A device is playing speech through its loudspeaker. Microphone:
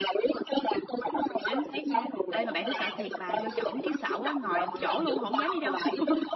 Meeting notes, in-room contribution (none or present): present